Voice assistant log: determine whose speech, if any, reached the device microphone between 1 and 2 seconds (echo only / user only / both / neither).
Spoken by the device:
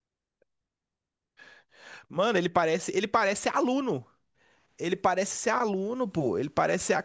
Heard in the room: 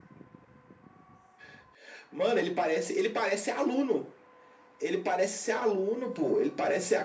neither